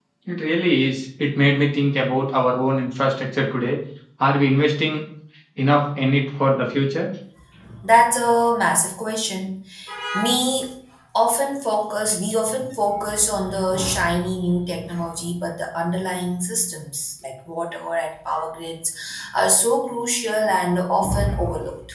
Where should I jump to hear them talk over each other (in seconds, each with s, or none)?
none